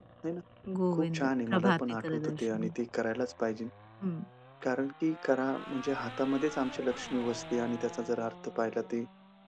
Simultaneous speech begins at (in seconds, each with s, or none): 0.9 s